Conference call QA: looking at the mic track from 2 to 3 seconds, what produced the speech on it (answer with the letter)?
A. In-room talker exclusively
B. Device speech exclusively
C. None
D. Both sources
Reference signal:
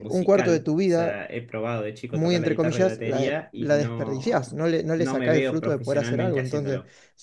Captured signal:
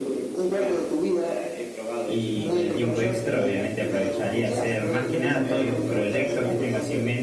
D